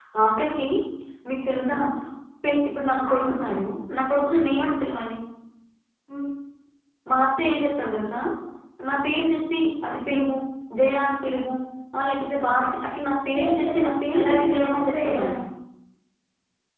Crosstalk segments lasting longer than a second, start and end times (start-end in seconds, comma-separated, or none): 13.3-15.3